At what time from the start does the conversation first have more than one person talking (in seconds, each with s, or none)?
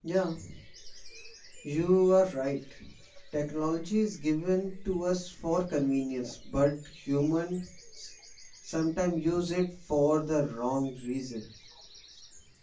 none